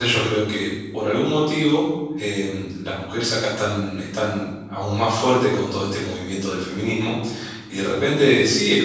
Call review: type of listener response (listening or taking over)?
listening